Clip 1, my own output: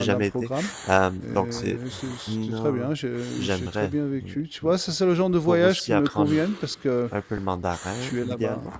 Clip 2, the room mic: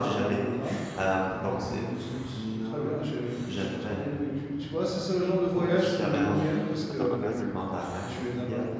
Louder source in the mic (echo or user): echo